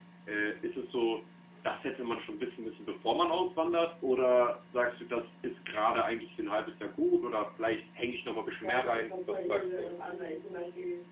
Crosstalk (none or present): present